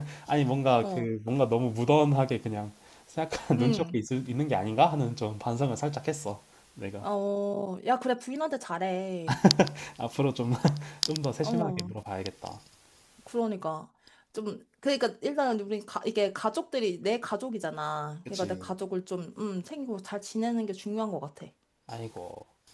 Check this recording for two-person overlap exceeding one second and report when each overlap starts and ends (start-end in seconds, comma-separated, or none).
none